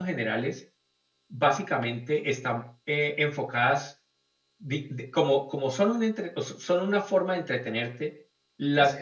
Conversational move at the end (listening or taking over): listening